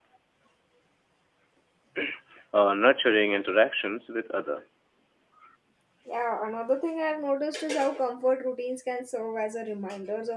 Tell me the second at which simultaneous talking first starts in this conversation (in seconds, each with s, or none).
none